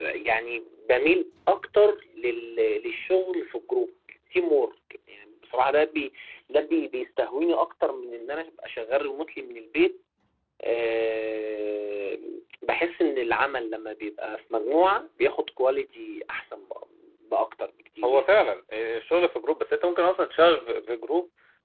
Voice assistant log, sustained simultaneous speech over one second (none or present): none